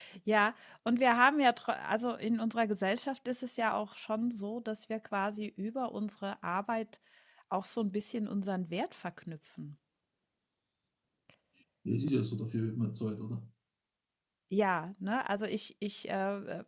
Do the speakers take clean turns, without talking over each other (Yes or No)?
Yes